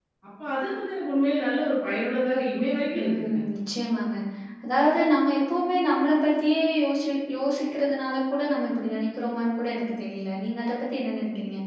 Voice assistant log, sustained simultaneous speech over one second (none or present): none